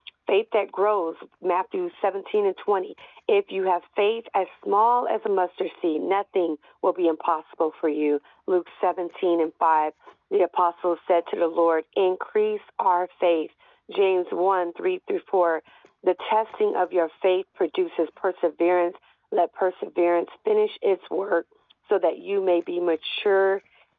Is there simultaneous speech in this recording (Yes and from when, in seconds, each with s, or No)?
No